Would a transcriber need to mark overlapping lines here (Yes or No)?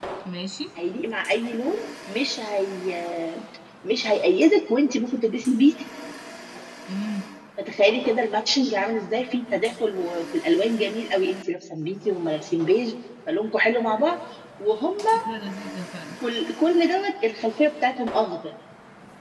No